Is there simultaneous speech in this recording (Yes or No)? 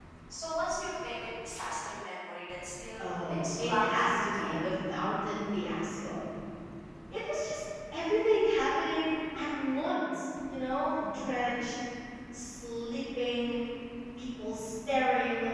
Yes